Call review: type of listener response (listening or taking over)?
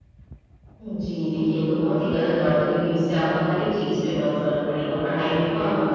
listening